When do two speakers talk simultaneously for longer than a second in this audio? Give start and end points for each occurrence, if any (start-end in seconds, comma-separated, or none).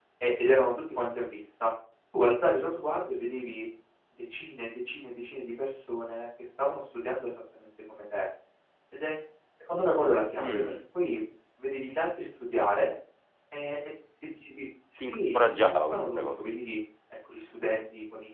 15.0-16.4